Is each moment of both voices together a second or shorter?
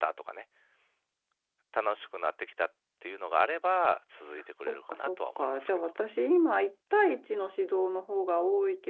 No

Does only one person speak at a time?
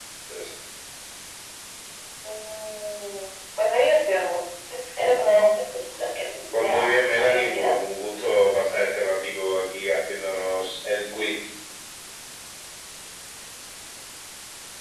No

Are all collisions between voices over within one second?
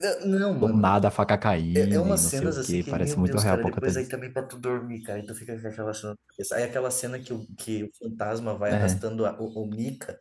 No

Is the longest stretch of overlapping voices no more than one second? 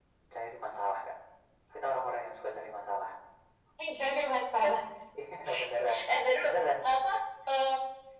Yes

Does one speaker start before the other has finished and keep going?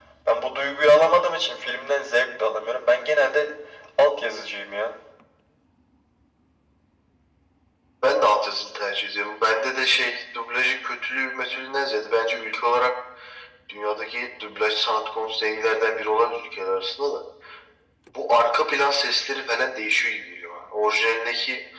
No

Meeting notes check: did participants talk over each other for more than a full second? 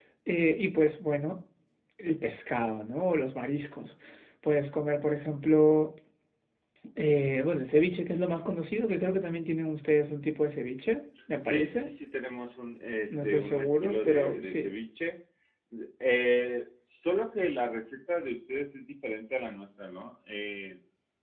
Yes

